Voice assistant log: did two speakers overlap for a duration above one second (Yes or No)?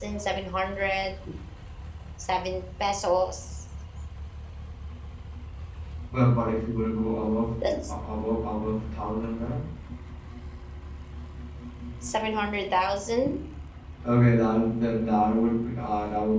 No